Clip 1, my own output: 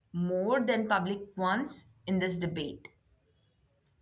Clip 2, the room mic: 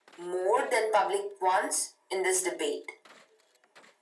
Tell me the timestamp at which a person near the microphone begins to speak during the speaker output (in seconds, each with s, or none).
none